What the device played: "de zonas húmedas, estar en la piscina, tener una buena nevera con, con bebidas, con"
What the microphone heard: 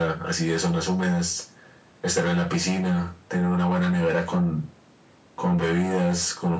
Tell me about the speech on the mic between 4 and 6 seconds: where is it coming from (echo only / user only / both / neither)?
echo only